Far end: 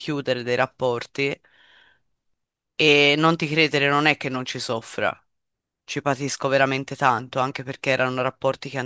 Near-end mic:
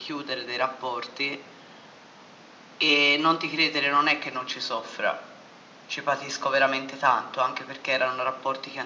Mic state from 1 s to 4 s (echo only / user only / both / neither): echo only